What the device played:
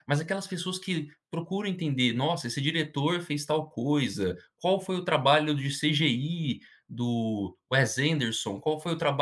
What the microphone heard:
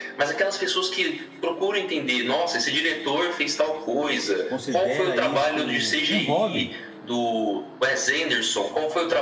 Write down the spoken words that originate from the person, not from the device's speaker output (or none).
considera isso um hobby?